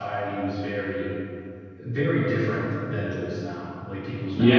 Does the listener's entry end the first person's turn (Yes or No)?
Yes